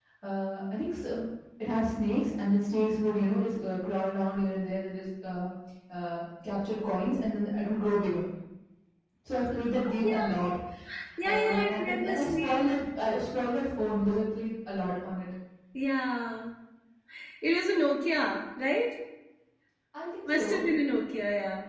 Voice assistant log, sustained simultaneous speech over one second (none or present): present